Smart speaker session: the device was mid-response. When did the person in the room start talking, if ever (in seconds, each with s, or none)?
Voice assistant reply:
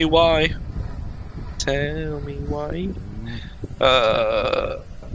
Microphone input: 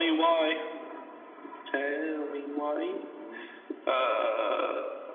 none